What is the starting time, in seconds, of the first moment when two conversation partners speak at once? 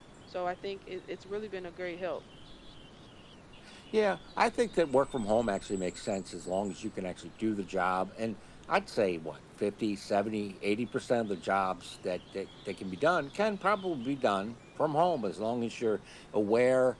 none

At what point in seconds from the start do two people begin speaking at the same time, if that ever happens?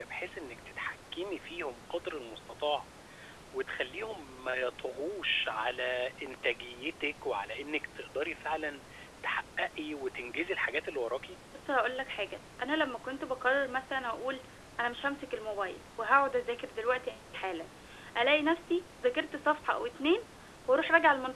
none

